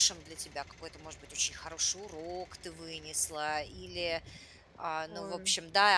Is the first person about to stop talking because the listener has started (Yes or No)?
No